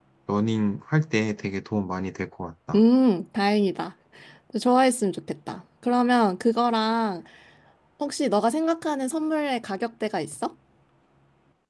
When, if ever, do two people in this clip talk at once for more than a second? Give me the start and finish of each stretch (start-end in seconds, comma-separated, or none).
none